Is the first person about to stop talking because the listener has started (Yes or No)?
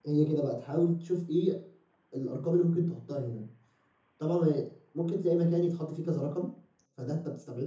No